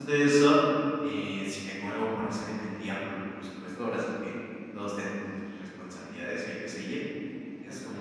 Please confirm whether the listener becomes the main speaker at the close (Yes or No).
No